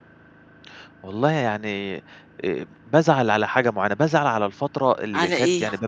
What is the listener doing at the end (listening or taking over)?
listening